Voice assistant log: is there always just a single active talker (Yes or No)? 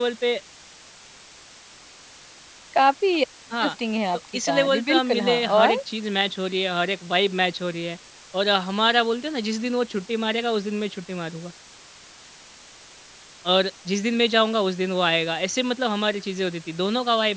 No